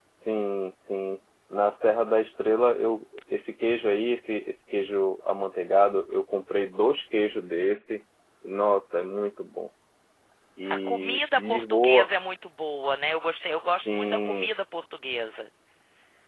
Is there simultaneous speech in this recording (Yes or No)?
Yes